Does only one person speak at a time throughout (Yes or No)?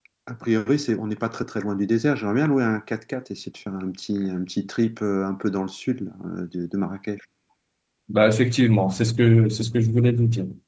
Yes